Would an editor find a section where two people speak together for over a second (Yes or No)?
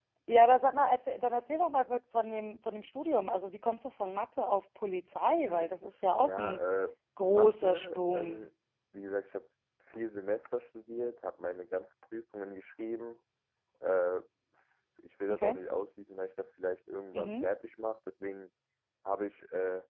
Yes